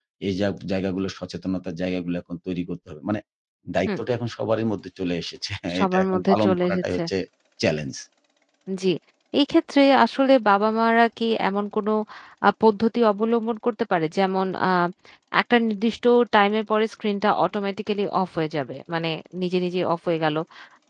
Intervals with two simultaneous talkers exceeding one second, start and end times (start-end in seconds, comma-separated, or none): 5.8-7.0